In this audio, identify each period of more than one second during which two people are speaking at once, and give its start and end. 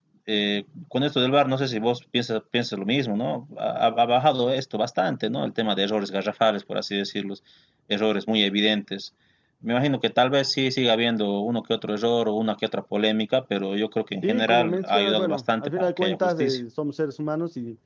14.2-16.6

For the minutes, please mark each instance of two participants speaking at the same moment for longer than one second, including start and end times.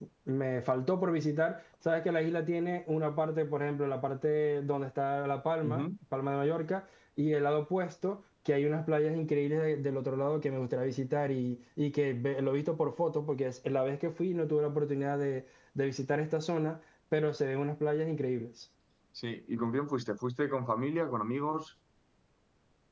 none

